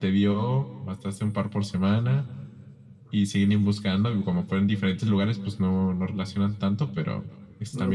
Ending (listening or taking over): taking over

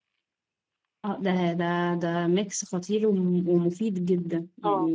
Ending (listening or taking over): taking over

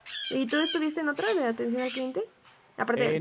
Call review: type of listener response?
taking over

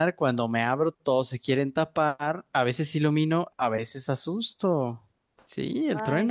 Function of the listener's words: taking over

